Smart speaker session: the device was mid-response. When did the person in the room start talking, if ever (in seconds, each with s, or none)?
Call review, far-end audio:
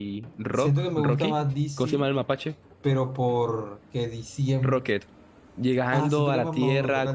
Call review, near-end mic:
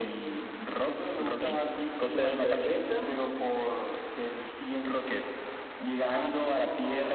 2.0 s